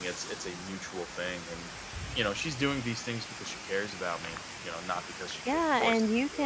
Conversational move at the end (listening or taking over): taking over